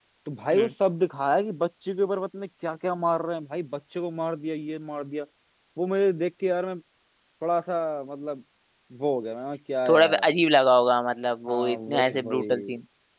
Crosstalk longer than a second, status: present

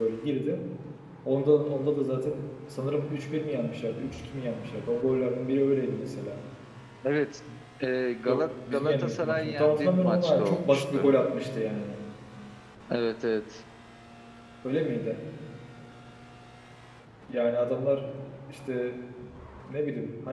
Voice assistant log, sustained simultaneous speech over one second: present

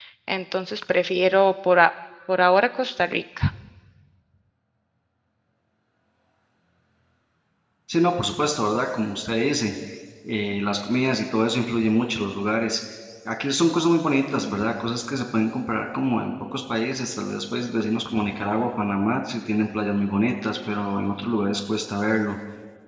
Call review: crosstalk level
none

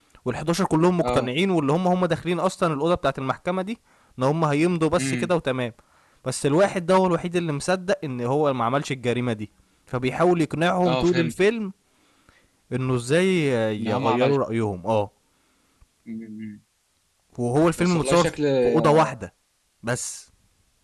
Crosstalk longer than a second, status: present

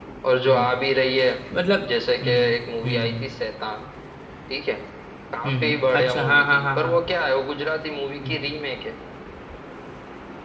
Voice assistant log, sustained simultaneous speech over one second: present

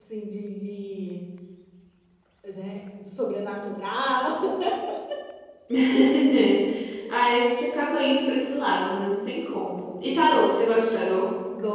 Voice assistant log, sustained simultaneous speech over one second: none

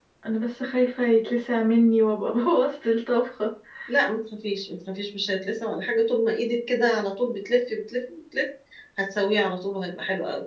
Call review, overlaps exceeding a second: none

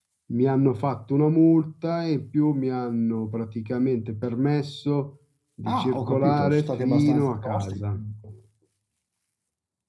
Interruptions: present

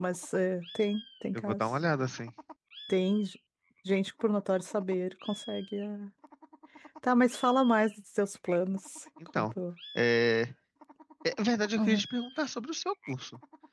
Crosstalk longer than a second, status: none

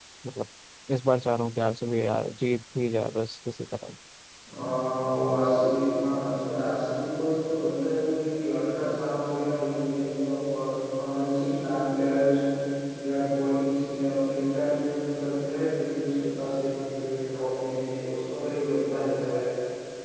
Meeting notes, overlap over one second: none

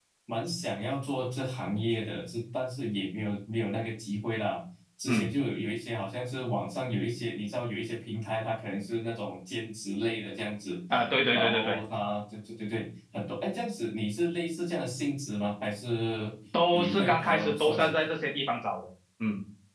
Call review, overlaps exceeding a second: present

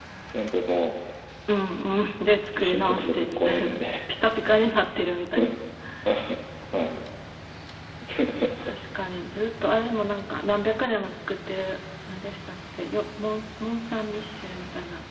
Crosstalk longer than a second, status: present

